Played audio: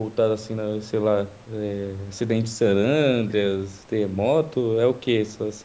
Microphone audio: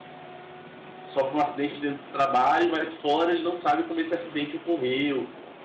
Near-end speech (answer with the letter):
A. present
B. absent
A